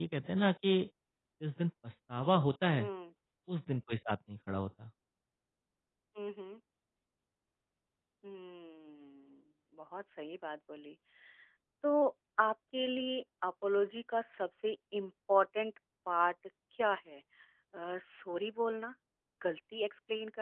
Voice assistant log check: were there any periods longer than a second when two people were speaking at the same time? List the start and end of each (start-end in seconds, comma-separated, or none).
none